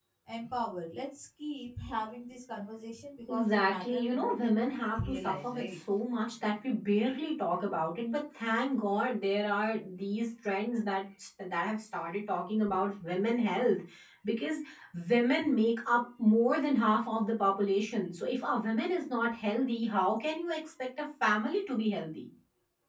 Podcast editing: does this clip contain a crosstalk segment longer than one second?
Yes, from 3.3 s

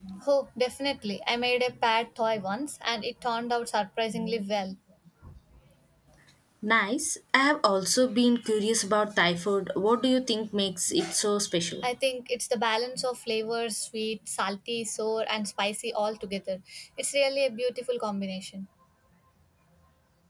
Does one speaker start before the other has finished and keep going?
No

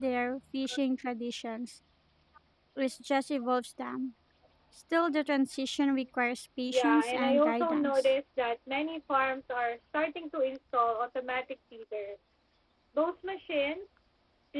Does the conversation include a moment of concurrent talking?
Yes, from 6.7 s

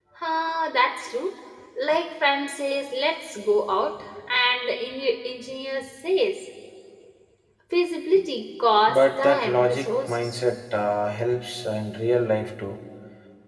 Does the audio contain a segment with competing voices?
Yes, from 8.9 s

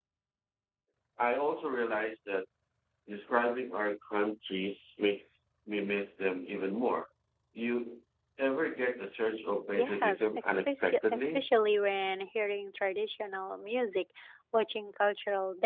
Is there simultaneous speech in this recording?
Yes, from 9.8 s

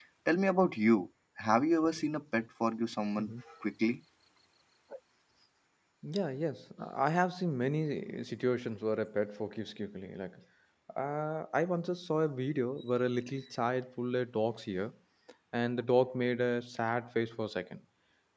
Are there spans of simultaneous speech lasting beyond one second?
No

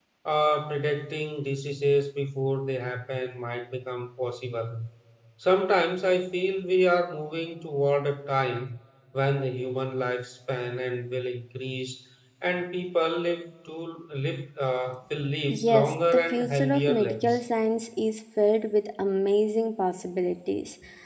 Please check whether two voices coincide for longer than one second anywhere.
Yes, from 15.5 s

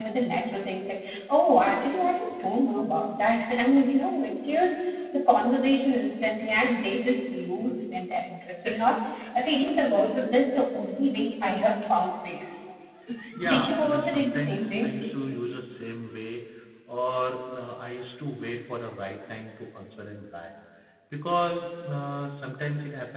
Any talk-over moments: Yes, from 13.5 s

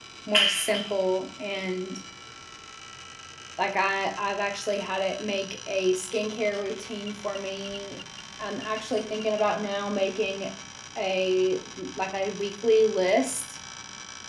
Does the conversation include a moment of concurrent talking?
No

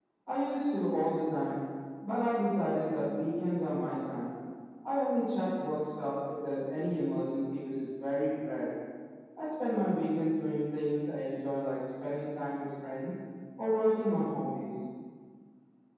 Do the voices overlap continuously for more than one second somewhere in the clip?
No

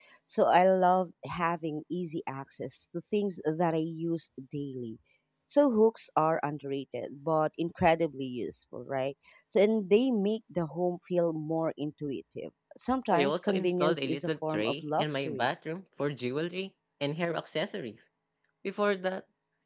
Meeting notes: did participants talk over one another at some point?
Yes, from 13.1 s

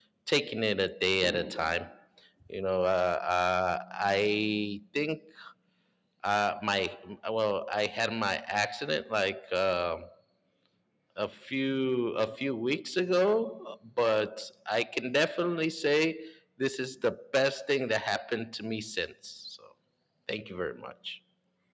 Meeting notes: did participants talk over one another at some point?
No

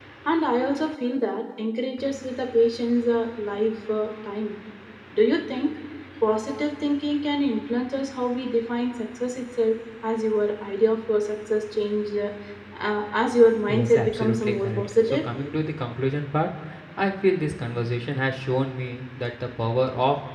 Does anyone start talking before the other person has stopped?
Yes, from 13.7 s

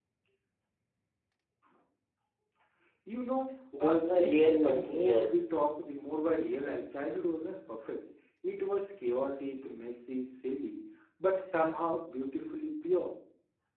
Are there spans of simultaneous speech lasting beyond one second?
Yes, from 3.8 s

